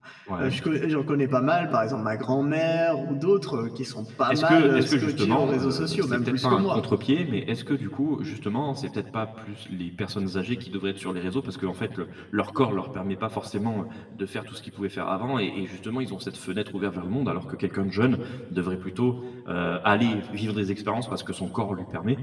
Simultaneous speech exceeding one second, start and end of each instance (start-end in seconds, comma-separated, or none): 4.3-6.8